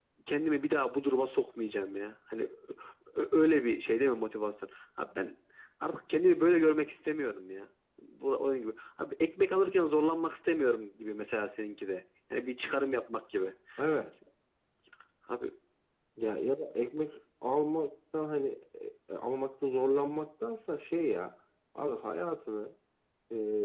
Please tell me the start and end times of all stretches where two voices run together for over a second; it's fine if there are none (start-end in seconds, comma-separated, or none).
none